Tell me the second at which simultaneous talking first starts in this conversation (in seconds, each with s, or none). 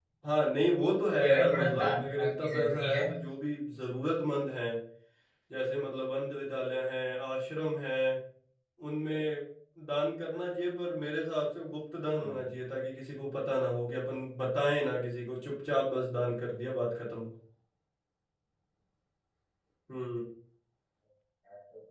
1.1 s